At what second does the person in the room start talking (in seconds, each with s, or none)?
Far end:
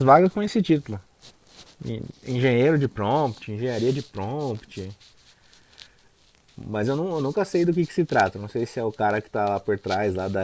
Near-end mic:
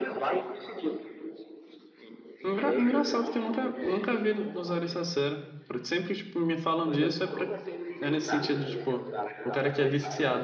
2.4 s